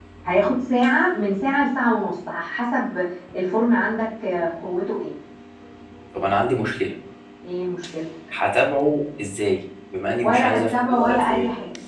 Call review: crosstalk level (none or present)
present